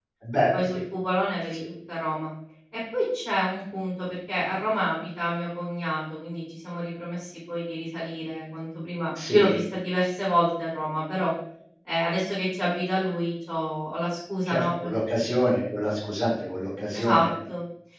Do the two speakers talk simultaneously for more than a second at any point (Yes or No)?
No